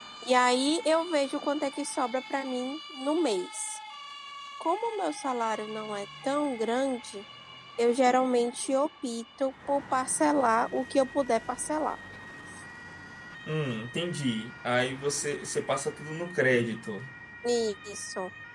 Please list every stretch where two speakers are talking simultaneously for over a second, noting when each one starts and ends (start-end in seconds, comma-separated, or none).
none